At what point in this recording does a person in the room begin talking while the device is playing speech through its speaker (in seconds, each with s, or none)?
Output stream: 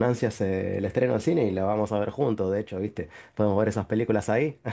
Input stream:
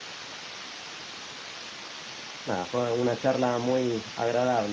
2.5 s